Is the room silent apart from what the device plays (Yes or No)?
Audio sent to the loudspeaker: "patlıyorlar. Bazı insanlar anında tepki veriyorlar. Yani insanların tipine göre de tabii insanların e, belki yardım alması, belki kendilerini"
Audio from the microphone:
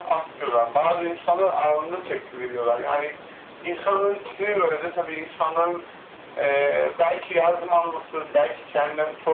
Yes